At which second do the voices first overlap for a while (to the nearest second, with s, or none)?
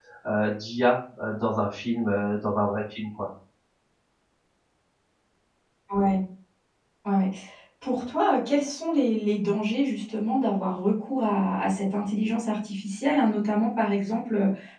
none